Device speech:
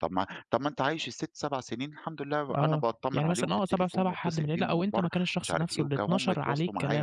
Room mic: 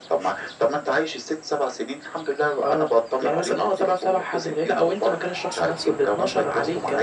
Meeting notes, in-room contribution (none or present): none